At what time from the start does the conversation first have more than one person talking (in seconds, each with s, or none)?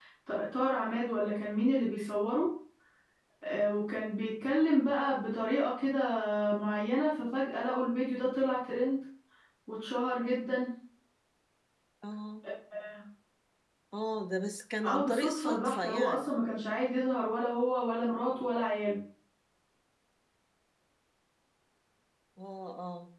14.8 s